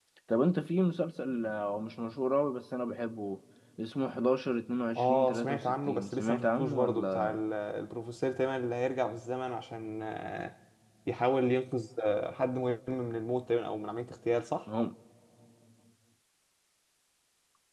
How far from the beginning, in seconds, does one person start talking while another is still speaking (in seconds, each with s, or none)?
4.9 s